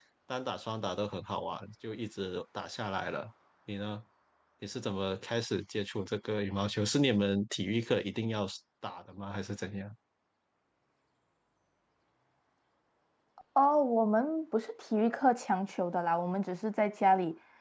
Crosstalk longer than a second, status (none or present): none